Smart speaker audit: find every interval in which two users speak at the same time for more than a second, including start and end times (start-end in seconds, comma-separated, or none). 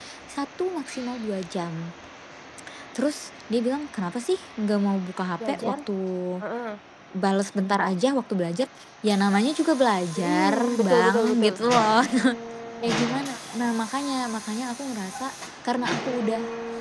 10.2-11.5